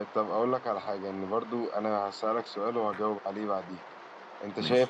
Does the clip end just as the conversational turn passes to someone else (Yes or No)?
No